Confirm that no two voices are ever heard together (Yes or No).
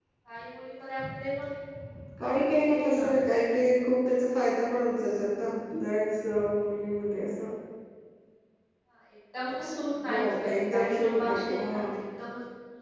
No